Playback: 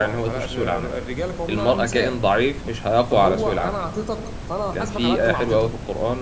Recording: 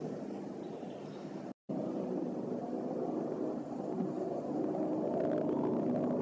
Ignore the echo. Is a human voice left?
No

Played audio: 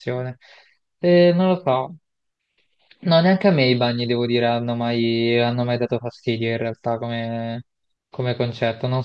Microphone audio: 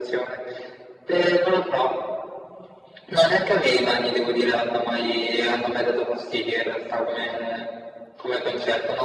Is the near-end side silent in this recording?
Yes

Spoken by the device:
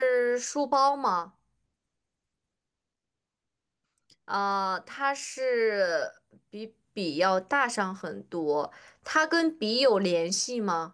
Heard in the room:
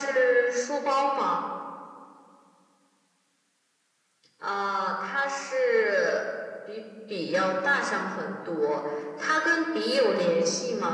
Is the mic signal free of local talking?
Yes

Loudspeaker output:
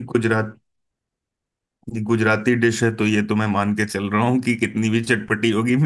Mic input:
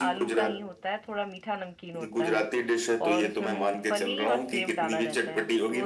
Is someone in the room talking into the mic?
Yes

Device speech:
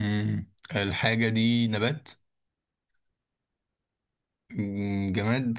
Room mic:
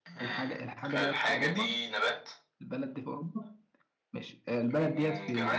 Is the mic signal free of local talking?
No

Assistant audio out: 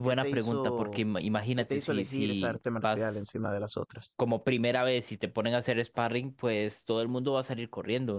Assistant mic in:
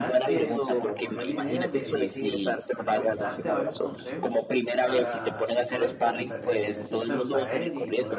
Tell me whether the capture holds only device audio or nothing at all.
No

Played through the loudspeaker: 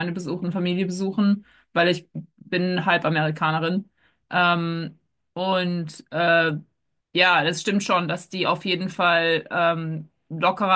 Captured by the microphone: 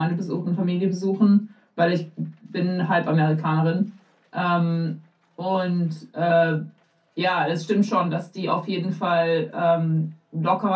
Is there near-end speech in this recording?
No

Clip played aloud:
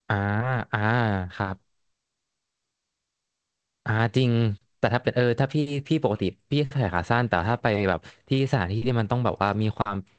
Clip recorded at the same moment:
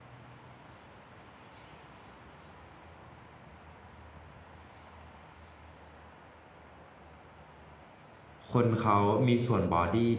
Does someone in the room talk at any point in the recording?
Yes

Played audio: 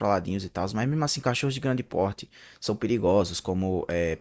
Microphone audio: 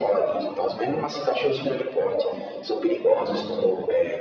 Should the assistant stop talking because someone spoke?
Yes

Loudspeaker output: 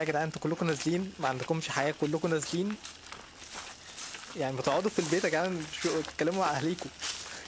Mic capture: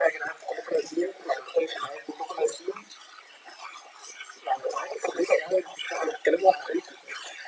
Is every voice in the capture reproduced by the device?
Yes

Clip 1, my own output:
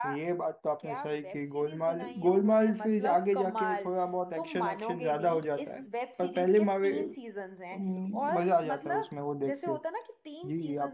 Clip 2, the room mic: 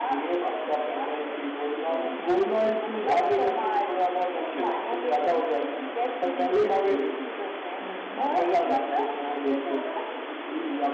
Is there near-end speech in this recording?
No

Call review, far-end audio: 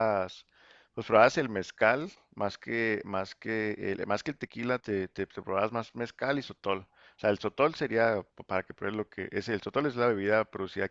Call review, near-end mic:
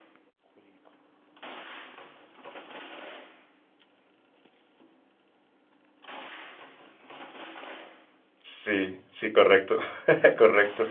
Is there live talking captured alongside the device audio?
Yes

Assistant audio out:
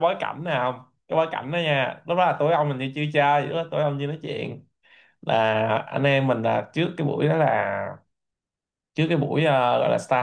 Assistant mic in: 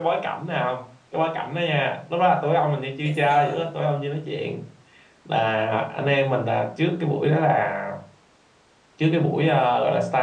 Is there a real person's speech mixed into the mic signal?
Yes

